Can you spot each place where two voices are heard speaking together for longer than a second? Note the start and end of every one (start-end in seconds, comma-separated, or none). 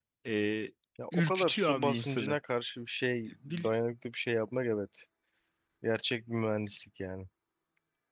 1.1-2.4